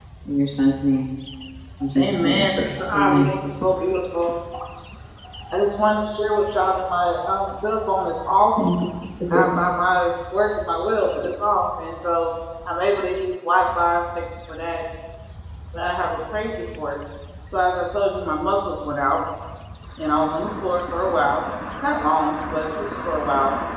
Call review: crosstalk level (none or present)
present